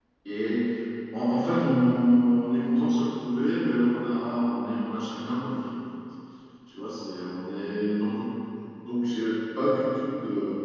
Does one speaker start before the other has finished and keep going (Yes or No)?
No